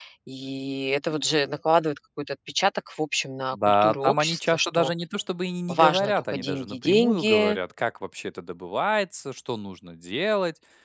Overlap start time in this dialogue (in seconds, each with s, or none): 3.5 s